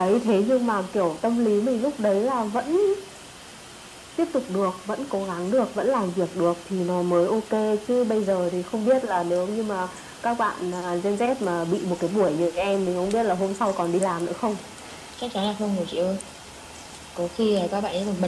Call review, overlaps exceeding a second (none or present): none